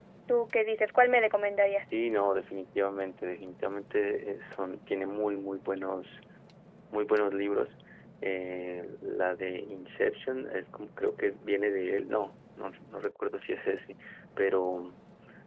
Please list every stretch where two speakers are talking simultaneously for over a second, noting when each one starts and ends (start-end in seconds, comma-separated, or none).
none